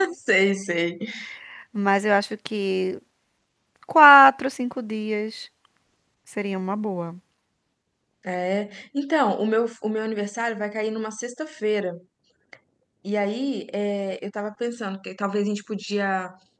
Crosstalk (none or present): none